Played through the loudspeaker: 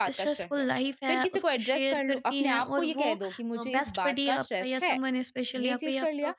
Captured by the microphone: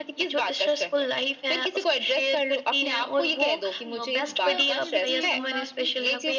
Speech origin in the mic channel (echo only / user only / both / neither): both